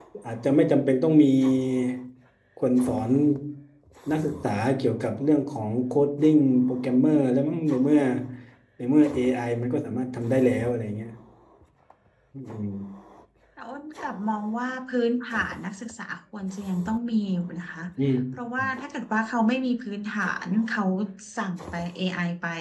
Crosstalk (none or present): none